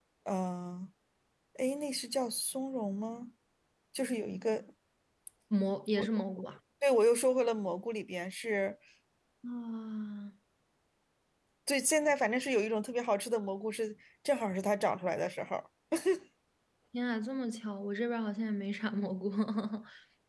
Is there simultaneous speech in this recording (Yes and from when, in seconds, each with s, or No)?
No